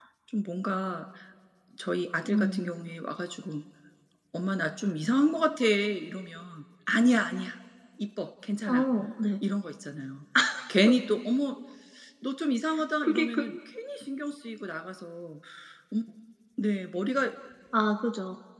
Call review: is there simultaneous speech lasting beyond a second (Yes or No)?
No